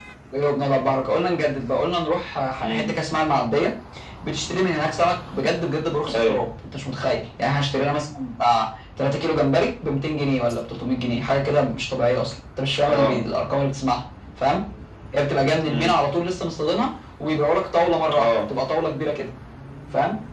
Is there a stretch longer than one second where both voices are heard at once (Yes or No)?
No